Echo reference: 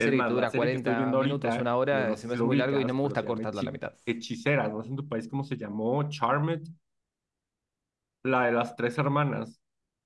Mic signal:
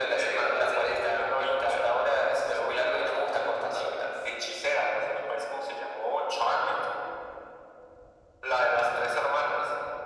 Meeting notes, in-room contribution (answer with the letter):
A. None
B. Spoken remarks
A